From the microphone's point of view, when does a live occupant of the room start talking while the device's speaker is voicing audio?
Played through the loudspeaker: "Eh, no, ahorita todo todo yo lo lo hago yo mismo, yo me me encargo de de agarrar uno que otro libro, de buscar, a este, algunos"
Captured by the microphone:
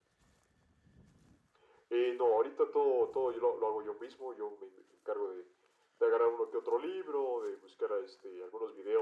none

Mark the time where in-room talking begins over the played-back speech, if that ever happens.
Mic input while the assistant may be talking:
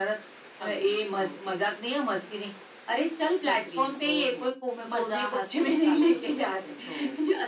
none

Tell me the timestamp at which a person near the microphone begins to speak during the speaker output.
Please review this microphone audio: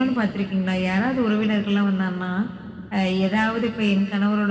none

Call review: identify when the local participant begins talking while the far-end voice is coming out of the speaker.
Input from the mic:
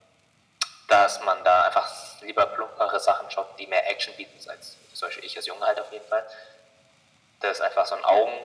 none

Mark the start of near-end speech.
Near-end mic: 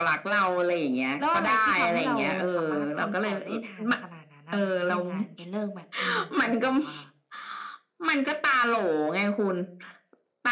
none

